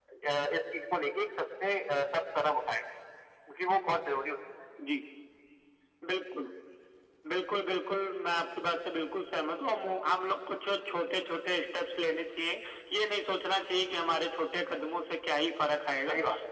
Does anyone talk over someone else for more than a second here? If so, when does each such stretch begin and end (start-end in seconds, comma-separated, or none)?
none